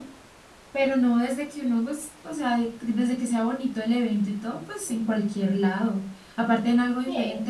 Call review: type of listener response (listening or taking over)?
listening